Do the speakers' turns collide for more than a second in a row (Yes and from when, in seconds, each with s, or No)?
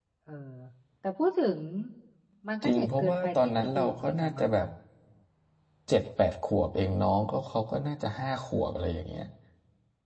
Yes, from 2.6 s